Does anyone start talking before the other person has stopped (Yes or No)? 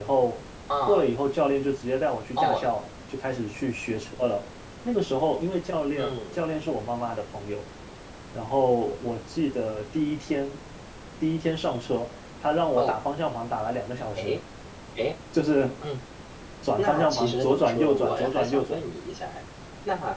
Yes